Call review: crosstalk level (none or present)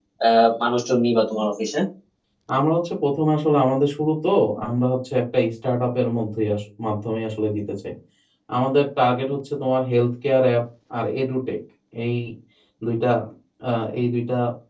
none